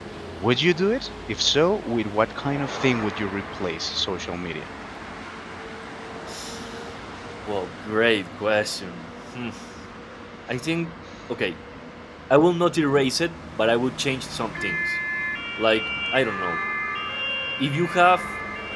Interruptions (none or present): none